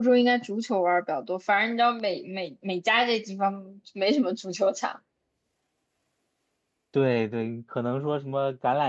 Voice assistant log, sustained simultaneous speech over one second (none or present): none